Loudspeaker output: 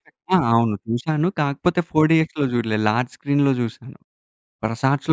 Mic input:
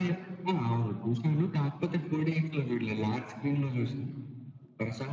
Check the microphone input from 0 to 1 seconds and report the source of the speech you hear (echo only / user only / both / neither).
echo only